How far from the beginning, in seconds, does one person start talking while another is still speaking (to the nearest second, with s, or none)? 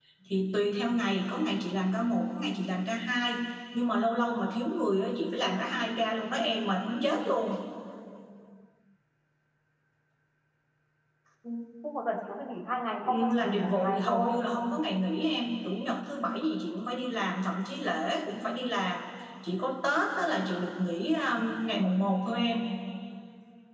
13 s